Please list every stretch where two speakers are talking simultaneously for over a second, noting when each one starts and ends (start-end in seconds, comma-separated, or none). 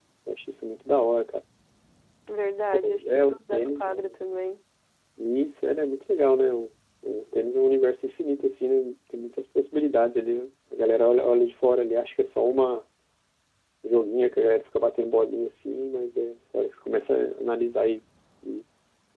2.8-4.1